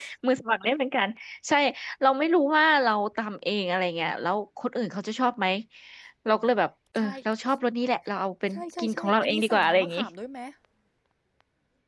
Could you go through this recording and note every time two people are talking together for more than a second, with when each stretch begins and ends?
8.6-10.0

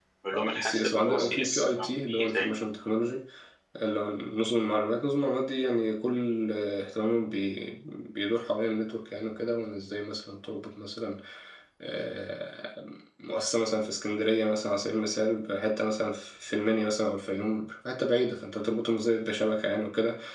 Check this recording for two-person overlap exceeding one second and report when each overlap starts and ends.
0.6-2.6

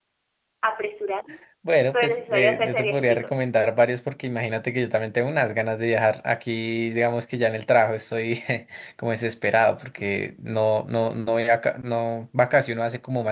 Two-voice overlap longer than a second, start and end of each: 1.9-3.3

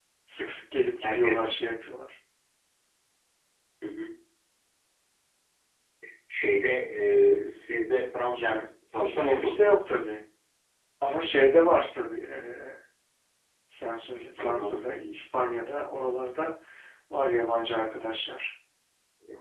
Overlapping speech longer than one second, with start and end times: 8.3-9.8

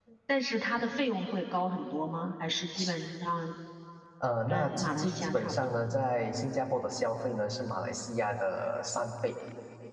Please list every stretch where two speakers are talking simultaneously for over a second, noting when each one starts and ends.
4.5-5.8

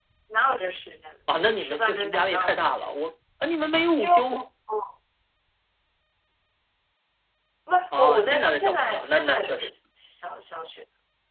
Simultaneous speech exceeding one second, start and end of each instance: 1.3-3.0, 7.9-9.7

